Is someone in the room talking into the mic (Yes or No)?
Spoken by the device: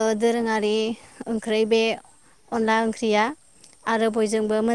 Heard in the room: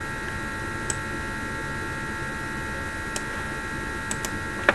No